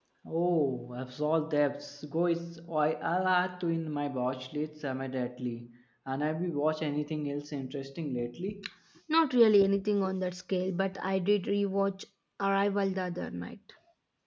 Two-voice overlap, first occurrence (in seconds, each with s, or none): none